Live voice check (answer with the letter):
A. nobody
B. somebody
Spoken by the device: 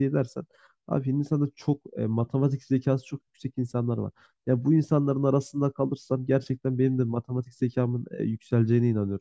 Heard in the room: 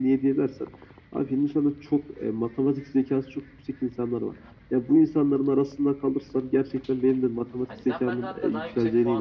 B